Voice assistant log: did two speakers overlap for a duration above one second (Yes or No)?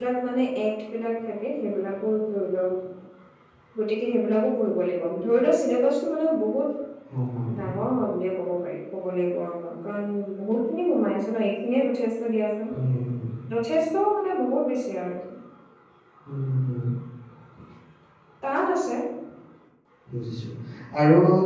No